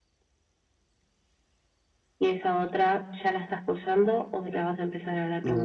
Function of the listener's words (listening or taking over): taking over